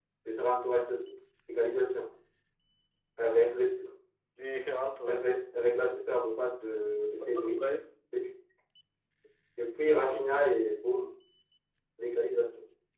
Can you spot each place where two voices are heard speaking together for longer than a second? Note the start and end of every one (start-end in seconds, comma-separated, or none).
none